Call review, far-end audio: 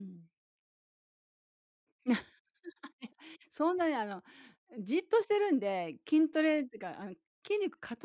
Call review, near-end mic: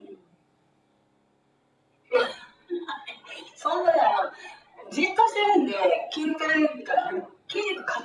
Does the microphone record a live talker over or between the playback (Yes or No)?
No